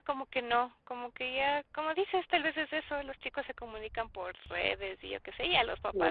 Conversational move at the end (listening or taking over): taking over